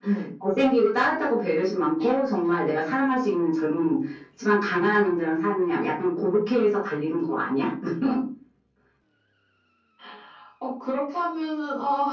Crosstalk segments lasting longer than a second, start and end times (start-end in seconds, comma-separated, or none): none